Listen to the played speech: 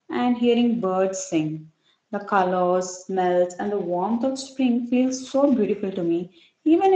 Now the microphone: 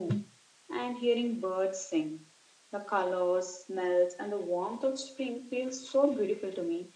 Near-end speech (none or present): none